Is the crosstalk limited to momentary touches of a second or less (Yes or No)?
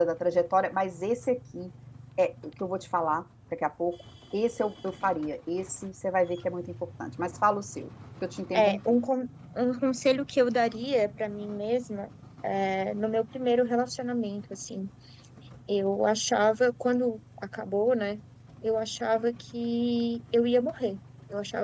Yes